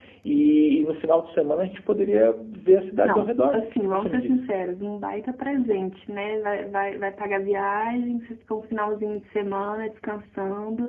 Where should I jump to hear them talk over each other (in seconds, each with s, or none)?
3.0 s